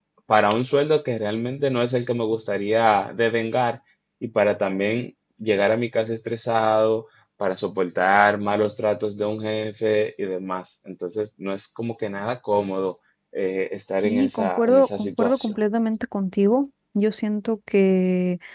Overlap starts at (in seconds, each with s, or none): 14.0 s